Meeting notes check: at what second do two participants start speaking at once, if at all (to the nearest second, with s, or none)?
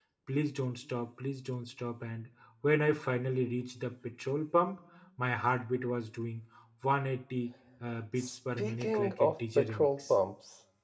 8 s